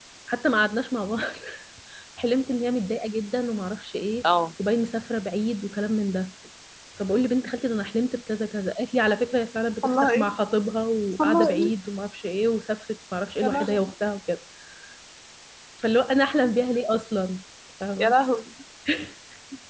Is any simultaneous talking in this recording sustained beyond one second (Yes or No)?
No